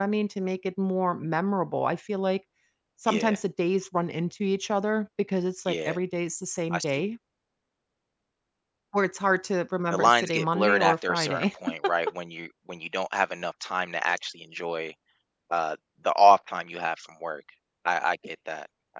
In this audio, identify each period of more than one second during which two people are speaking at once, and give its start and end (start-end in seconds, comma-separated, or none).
9.9-11.5